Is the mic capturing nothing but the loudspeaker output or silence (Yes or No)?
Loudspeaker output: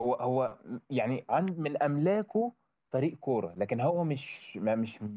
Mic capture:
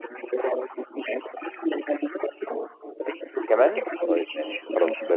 No